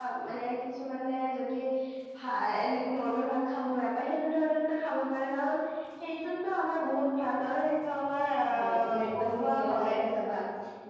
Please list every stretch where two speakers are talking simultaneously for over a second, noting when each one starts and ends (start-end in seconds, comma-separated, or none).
8.5-9.9